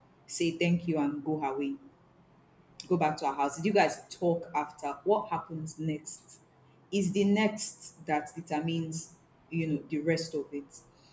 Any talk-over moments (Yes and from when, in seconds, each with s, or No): No